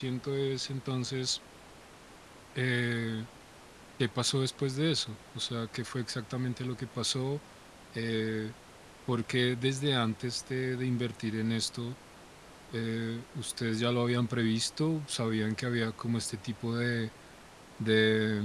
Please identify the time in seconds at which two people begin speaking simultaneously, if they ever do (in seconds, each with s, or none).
none